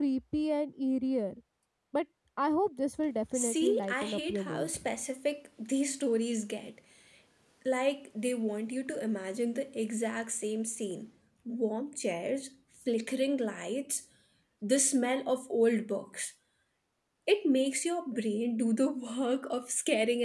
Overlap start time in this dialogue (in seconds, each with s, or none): 3.3 s